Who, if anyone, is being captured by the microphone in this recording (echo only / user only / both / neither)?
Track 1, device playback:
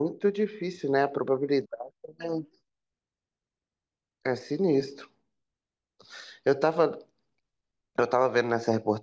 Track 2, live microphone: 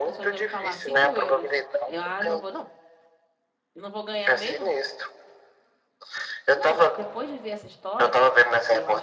both